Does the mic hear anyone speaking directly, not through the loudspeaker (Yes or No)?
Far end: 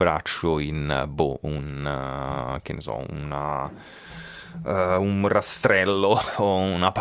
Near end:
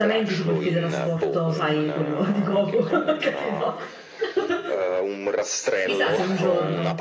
Yes